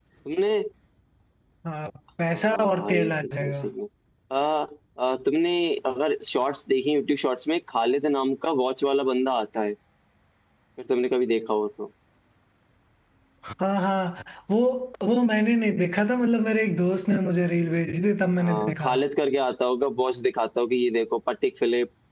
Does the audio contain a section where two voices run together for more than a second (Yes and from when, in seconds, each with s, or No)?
Yes, from 2.3 s